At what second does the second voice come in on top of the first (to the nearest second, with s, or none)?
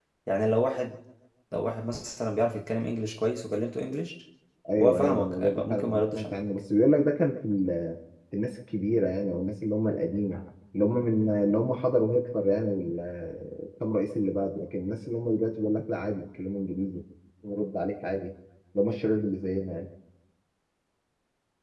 5 s